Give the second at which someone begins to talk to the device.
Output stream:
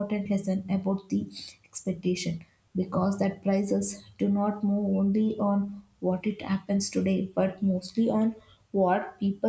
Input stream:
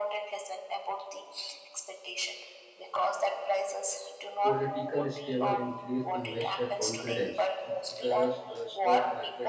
4.4 s

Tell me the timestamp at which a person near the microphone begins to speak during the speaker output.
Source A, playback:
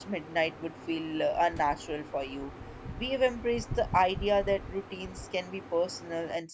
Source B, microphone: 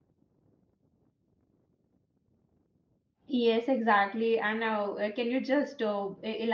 3.3 s

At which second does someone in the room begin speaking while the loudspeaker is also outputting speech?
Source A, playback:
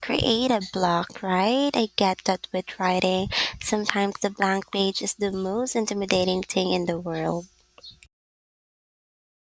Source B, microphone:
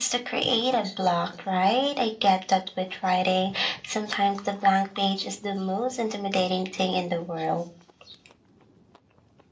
none

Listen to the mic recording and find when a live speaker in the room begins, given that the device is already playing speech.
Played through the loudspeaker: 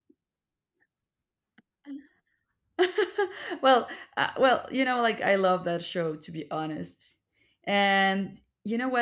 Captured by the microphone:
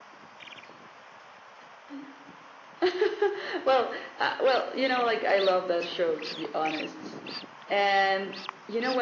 none

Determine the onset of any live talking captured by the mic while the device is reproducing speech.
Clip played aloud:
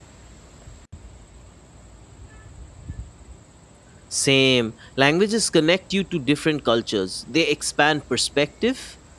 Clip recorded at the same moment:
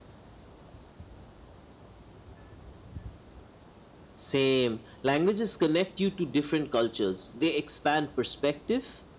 none

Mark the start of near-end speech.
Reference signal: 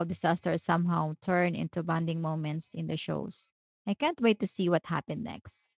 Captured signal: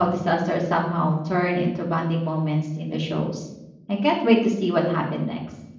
none

